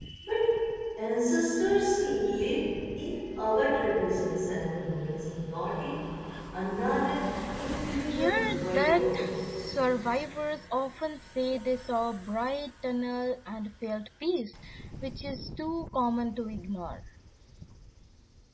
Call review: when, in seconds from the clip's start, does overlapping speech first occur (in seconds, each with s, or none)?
8.0 s